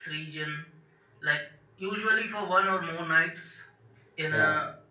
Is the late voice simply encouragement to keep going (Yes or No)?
Yes